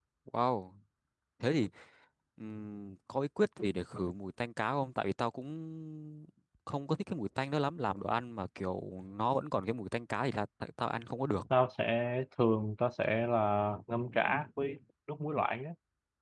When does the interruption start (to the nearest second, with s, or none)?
none